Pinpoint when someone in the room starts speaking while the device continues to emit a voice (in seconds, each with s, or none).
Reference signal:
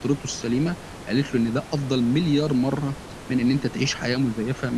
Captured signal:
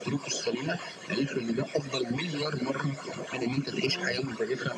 3.9 s